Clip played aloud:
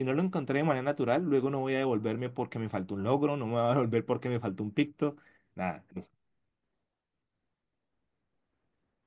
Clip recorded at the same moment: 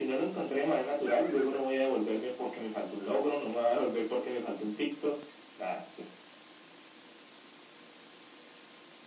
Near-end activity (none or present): none